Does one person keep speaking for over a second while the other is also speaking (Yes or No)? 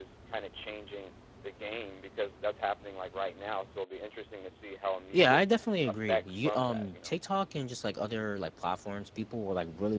Yes